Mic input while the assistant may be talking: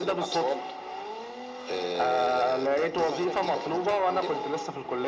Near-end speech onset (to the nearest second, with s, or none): none